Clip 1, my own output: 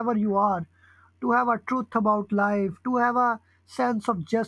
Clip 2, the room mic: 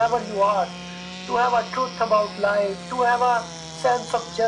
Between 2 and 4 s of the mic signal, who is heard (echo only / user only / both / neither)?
echo only